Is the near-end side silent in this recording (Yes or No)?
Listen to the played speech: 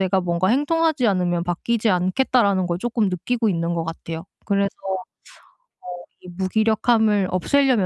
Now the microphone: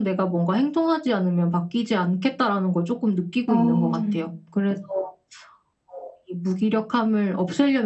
No